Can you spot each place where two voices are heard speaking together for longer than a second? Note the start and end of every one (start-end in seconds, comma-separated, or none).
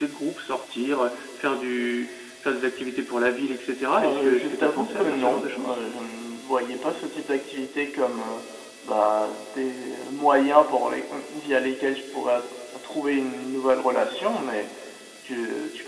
4.0-5.8